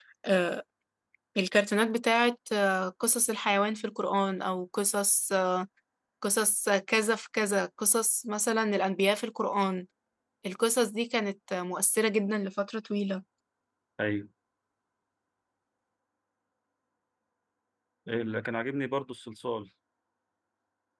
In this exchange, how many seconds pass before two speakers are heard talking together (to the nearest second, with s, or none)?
none